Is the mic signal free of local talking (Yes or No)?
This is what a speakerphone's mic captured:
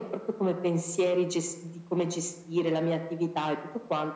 Yes